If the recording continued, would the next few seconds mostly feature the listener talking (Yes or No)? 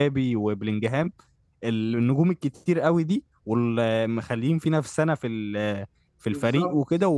No